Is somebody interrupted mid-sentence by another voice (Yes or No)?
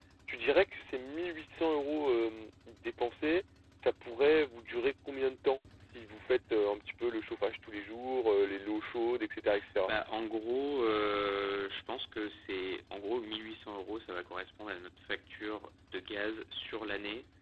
No